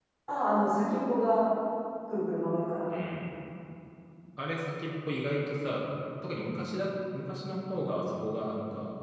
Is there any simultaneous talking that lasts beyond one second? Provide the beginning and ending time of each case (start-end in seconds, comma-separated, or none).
none